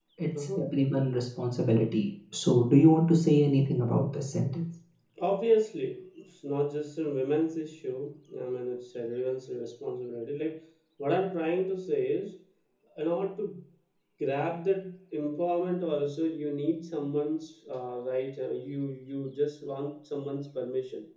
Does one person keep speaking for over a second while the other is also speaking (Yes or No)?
No